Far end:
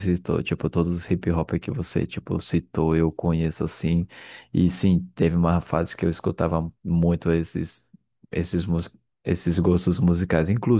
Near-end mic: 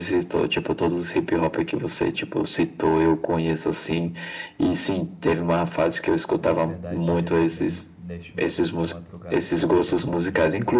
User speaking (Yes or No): Yes